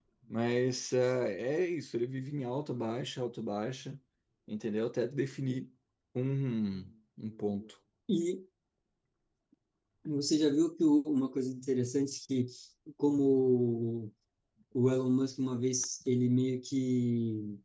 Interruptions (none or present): none